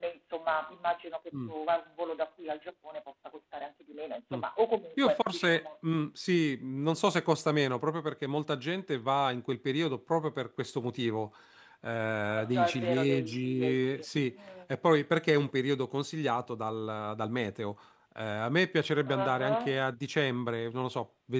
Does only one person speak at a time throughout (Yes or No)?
No